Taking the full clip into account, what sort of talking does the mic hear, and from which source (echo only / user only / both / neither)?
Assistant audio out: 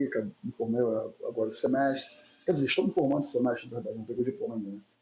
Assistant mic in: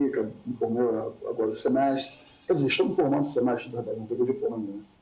echo only